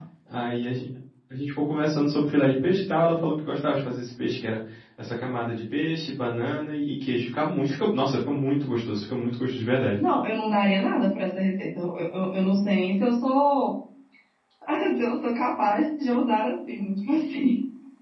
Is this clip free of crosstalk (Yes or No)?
Yes